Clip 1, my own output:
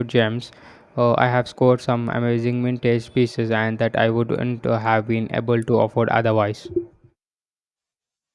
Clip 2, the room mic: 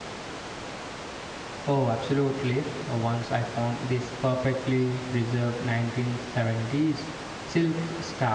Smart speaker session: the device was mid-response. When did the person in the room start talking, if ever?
2 s

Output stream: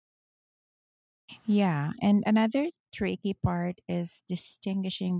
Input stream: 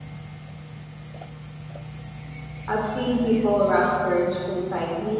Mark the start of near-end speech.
3 s

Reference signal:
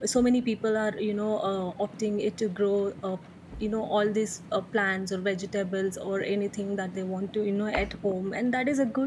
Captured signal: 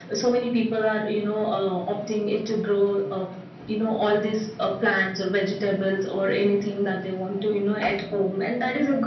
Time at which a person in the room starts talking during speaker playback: none

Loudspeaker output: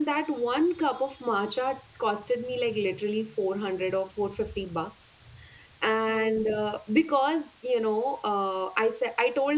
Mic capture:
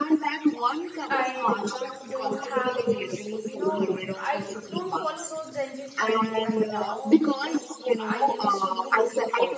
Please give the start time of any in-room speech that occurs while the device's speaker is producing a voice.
1 s

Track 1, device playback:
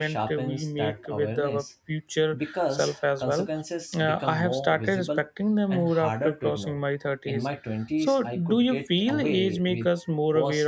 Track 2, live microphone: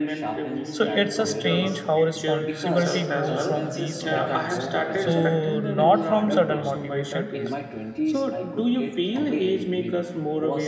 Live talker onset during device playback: 1 s

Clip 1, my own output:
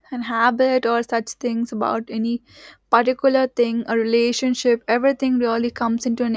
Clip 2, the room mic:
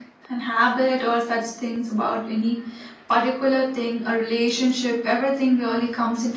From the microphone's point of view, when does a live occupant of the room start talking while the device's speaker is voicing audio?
none

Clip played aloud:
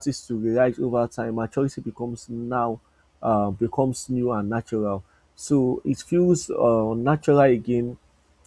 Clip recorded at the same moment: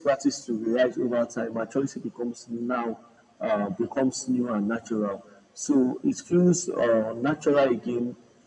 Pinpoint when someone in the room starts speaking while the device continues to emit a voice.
none

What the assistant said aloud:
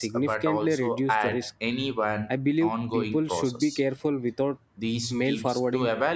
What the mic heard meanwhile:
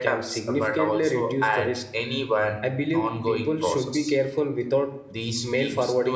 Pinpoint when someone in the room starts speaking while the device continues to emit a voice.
none

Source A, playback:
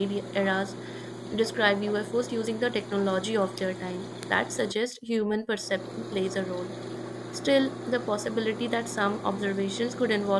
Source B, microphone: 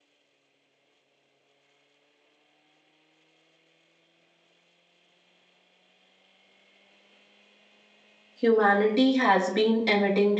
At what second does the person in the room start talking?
8 s

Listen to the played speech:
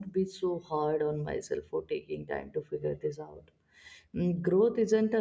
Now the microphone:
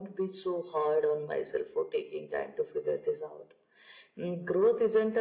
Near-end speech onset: none

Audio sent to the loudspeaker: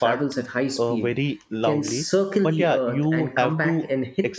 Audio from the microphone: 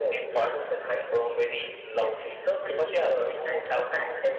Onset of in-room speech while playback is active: none

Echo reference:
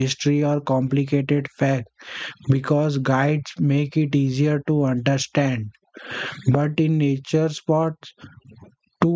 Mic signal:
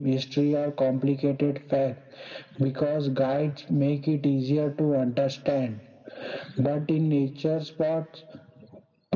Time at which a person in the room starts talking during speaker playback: none

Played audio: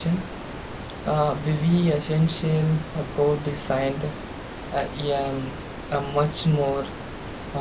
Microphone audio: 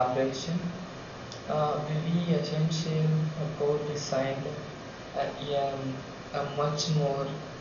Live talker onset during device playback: none

